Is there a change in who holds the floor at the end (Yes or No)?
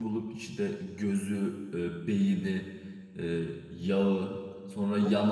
No